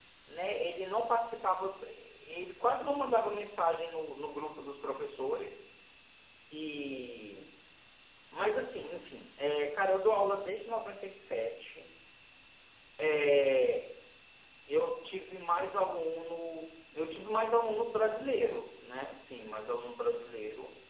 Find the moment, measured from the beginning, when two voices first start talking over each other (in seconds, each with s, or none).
none